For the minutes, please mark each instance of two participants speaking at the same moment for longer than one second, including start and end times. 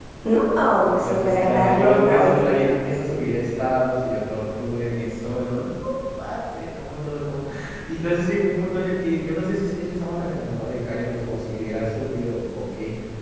0.8-2.4

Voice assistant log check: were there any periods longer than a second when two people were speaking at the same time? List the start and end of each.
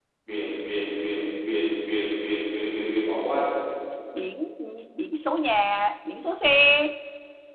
none

